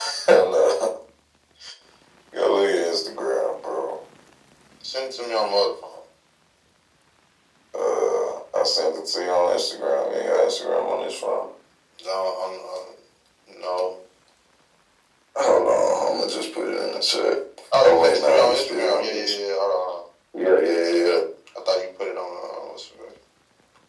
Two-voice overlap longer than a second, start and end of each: 17.8-19.4

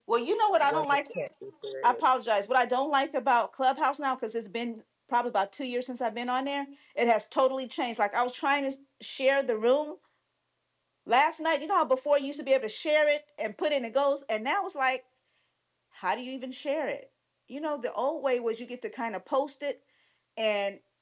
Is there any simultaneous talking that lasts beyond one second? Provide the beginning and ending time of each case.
none

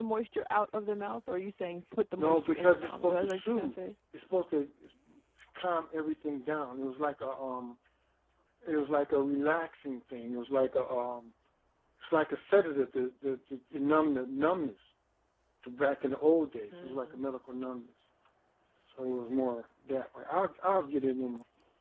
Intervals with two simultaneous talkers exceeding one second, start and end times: 2.2-3.7

